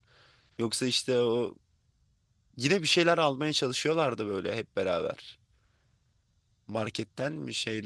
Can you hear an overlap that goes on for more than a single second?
No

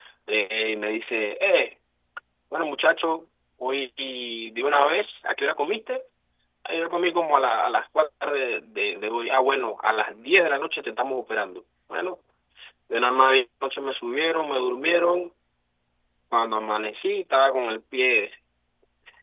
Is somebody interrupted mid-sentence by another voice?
No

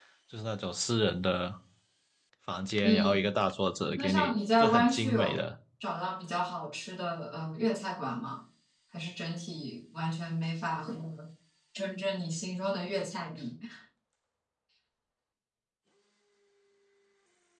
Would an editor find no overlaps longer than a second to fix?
No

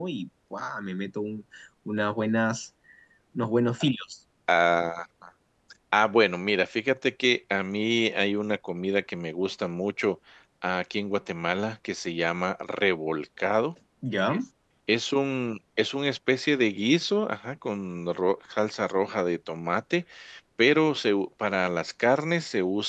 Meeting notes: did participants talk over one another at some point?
No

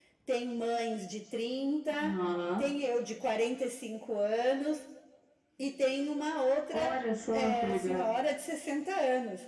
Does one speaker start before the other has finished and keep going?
Yes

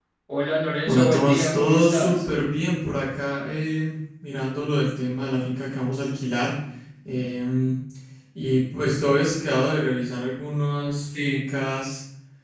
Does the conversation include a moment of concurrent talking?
Yes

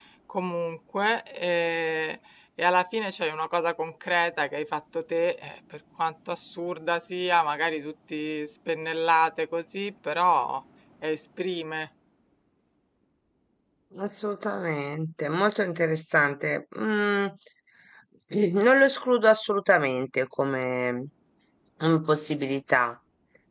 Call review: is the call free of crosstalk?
Yes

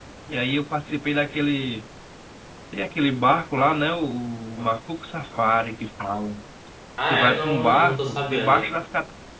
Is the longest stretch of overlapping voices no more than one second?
No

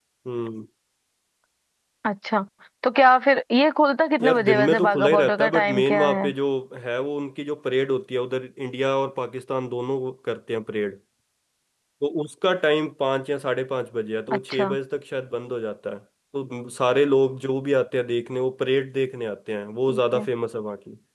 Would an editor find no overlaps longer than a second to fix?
No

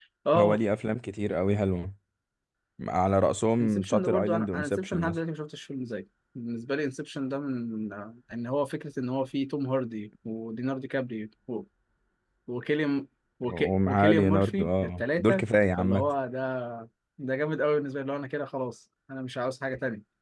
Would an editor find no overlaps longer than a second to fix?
No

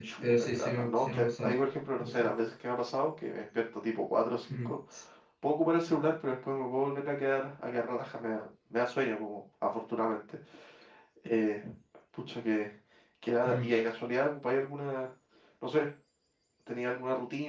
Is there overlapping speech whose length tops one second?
Yes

